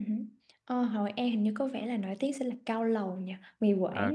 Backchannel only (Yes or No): No